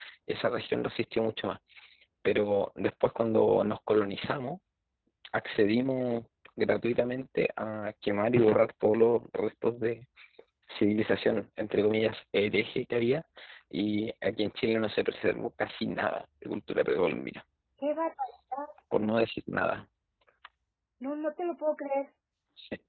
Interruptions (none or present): none